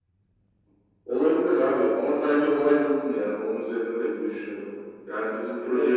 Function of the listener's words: listening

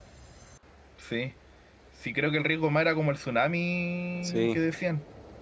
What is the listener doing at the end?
listening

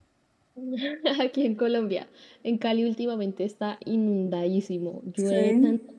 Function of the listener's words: listening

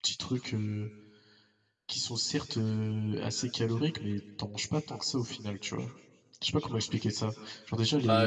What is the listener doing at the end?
taking over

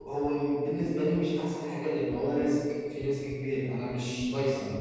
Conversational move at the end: taking over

